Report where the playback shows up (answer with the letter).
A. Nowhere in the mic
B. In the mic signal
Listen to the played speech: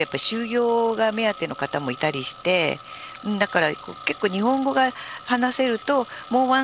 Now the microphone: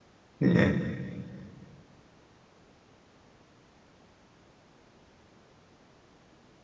A